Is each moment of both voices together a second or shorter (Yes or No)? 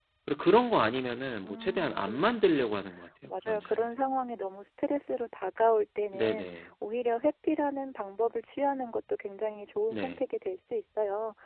No